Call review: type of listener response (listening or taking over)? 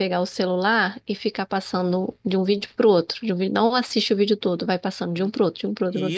taking over